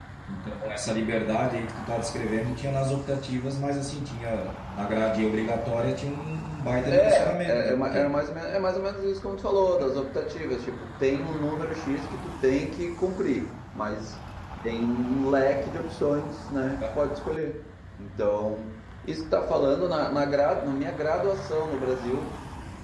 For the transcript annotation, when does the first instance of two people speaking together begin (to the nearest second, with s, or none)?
7 s